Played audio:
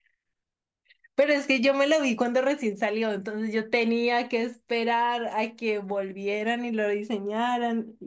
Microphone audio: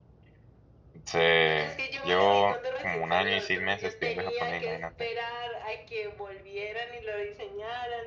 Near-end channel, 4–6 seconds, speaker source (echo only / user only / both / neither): both